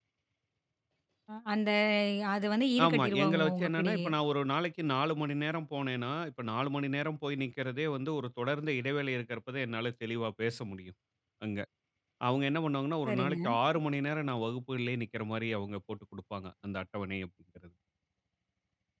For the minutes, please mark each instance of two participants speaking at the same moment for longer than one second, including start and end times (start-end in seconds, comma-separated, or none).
2.9-4.1